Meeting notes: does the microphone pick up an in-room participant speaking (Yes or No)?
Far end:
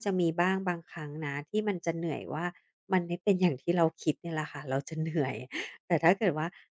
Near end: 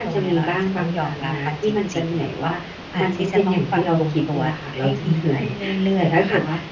Yes